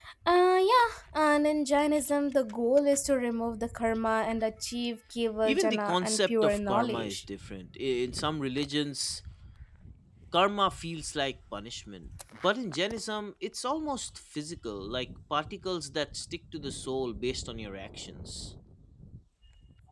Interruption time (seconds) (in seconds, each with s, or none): 5.4 s